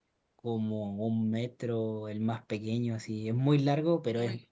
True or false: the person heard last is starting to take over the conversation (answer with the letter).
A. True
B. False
B